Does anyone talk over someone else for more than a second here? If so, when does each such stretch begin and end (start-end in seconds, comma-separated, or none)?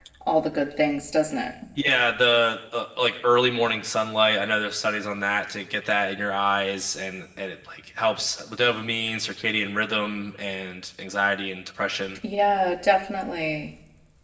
none